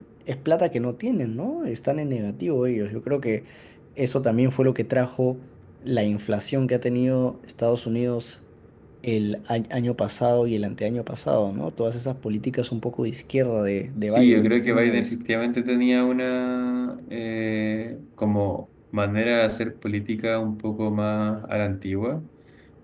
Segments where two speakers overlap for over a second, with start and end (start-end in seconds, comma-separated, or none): 13.9-15.1